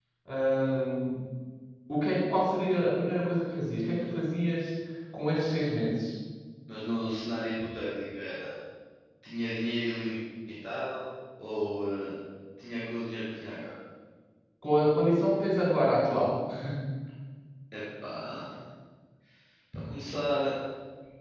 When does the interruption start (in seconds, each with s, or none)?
none